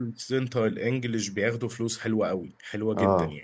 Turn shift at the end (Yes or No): Yes